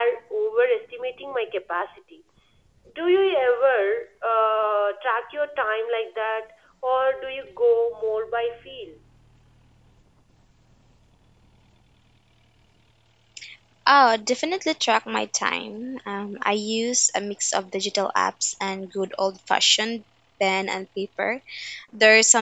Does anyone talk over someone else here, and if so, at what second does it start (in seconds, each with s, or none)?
none